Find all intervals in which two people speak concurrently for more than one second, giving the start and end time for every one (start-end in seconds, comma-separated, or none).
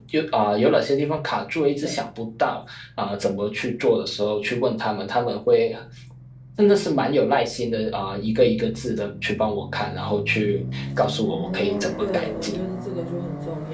11.3-12.6